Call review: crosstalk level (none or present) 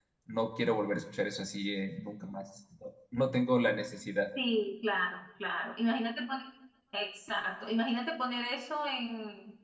none